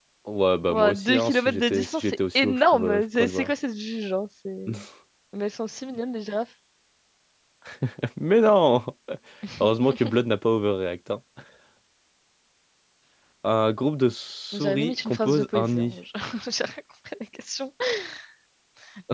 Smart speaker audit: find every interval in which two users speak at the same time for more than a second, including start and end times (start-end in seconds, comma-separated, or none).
0.7-3.5, 14.5-15.9